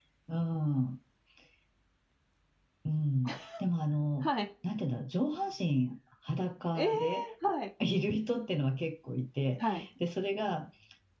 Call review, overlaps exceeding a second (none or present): none